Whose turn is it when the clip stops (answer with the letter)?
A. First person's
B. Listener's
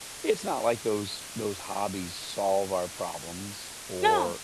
A